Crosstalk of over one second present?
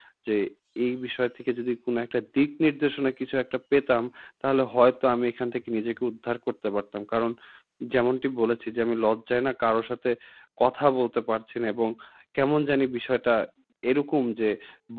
No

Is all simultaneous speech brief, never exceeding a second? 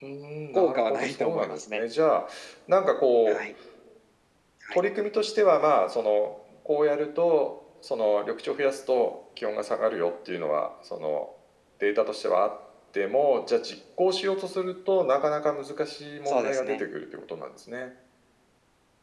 No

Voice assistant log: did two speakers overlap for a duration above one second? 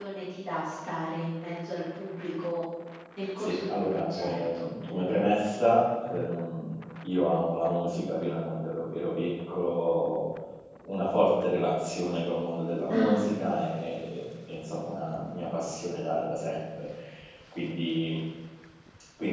Yes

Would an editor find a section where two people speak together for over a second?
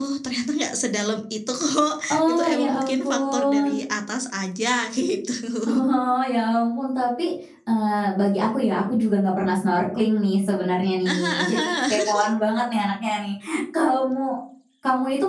Yes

